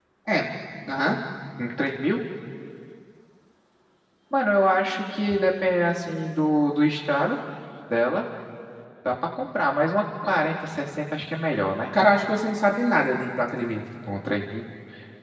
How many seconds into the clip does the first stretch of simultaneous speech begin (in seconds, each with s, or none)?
none